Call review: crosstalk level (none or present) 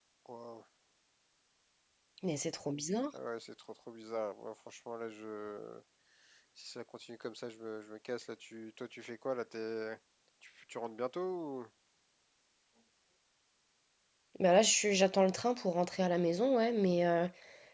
none